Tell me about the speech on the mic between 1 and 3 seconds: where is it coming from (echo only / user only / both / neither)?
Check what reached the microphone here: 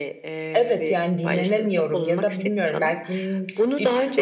both